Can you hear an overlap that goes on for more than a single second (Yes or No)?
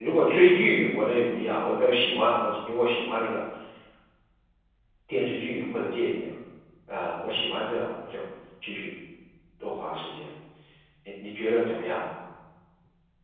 No